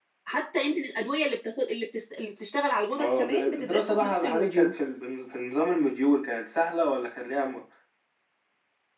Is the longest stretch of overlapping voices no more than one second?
No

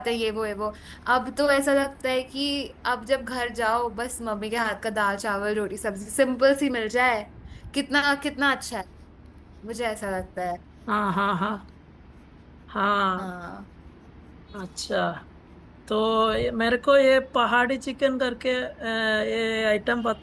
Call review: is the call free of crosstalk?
Yes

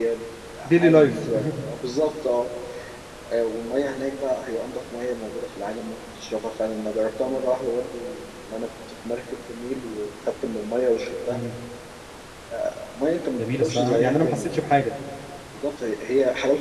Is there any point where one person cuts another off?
Yes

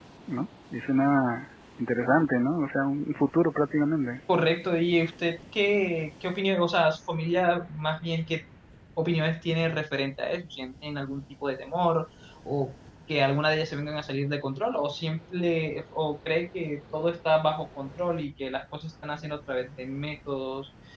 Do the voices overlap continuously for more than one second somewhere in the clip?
No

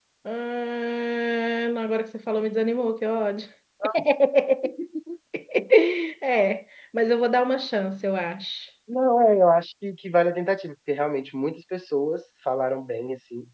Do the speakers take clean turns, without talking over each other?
Yes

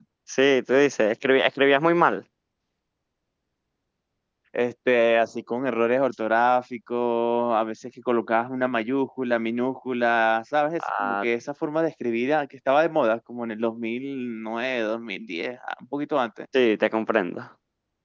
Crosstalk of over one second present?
No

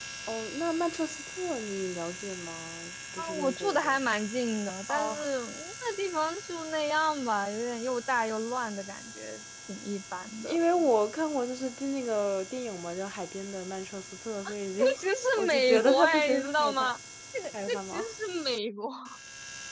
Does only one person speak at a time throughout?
No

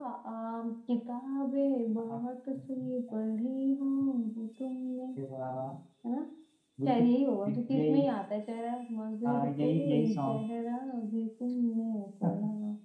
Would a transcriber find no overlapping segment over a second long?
No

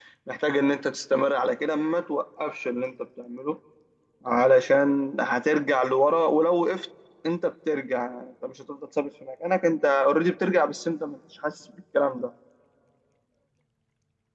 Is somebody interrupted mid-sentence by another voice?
No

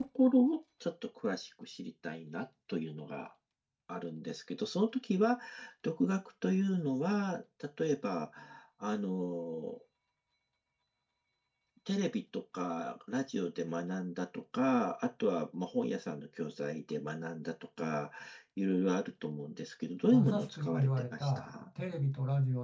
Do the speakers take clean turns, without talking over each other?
No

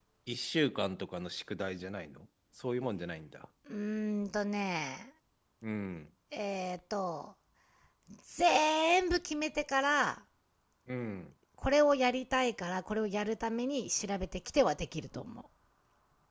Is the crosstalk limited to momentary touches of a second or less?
Yes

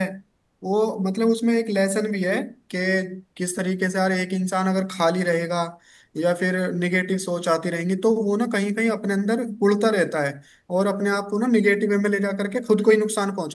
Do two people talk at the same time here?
No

